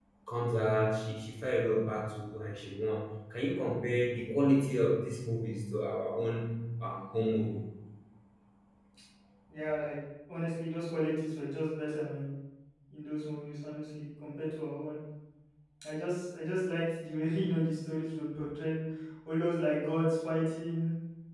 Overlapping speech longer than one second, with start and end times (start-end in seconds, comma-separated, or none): none